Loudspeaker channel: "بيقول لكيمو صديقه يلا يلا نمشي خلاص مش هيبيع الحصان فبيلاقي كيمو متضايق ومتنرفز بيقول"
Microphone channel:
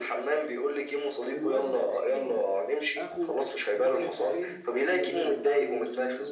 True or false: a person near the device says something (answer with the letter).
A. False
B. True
B